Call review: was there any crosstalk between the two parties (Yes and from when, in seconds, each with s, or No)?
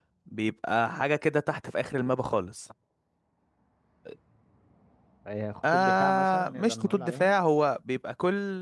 Yes, from 5.6 s